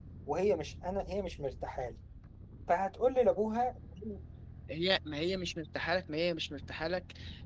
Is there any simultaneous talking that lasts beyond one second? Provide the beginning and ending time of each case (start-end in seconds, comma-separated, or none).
none